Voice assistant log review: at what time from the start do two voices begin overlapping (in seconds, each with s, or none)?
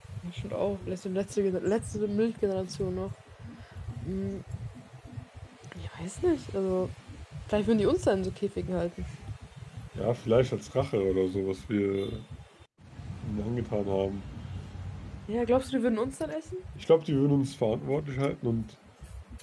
none